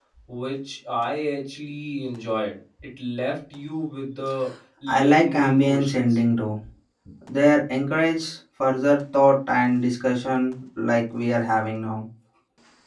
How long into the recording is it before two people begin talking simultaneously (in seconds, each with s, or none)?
4.9 s